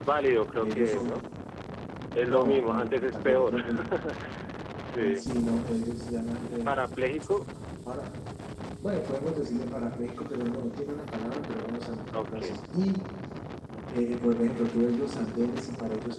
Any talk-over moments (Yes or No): Yes